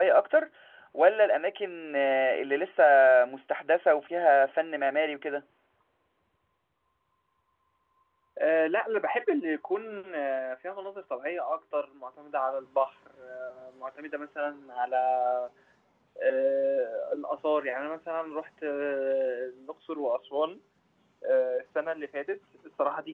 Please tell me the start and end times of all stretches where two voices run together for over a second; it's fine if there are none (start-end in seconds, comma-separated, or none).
none